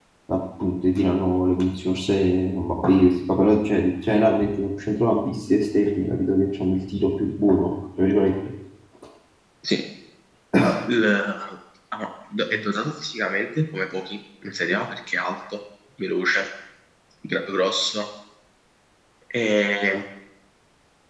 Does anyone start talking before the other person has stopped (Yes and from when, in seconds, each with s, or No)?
No